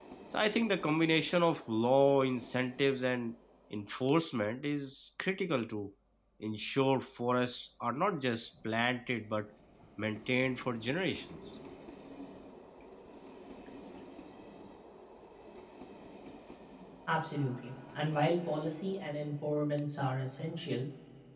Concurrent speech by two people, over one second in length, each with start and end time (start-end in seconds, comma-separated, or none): none